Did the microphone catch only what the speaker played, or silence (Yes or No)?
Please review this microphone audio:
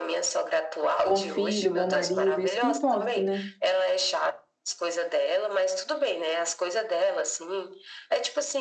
No